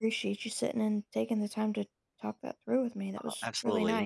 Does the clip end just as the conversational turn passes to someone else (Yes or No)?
Yes